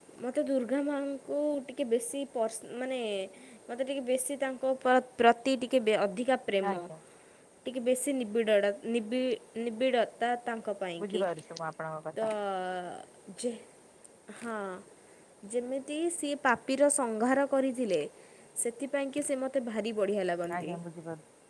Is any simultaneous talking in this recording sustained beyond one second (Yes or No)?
No